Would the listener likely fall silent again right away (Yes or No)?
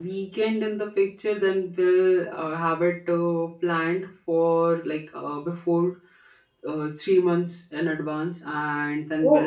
Yes